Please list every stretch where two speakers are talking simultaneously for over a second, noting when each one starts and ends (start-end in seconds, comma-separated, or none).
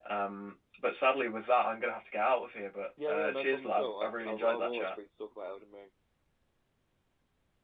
3.1-4.9